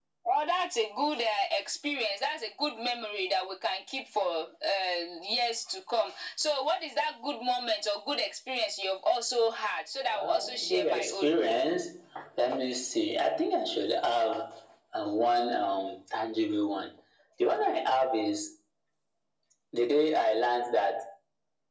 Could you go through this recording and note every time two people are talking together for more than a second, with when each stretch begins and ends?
10.1-11.4

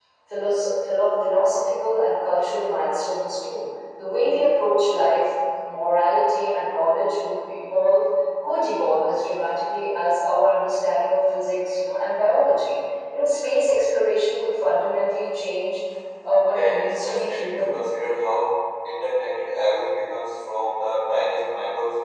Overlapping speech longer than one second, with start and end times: 16.5-17.8

